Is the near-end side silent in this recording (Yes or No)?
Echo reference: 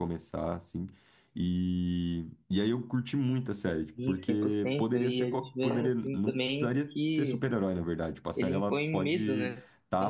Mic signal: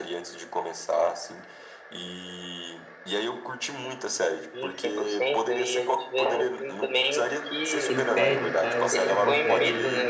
No